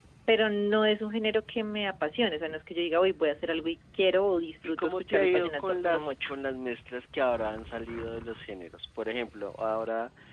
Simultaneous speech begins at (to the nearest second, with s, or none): 5 s